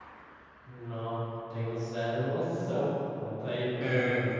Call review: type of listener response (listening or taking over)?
taking over